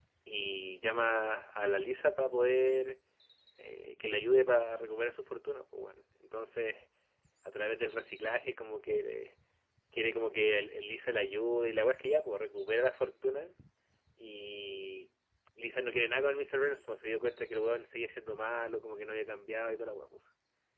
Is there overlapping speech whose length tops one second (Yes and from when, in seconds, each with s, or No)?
No